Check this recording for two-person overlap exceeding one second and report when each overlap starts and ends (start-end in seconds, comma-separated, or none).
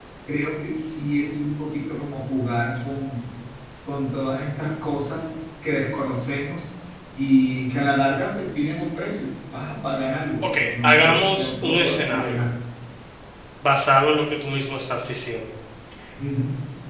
10.4-12.4